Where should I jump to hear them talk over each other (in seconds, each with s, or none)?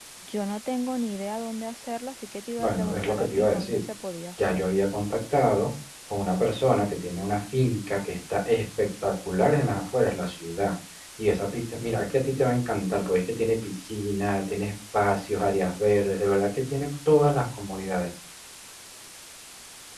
2.6 s